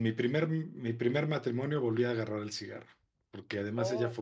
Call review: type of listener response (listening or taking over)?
listening